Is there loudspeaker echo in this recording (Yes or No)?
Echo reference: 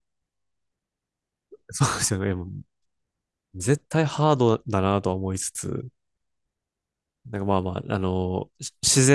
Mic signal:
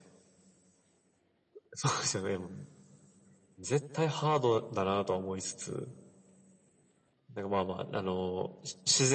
Yes